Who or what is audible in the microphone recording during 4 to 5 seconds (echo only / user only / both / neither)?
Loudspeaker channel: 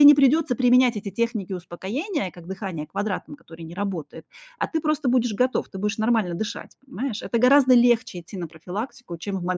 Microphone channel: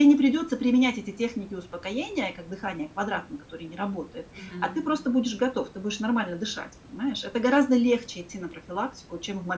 both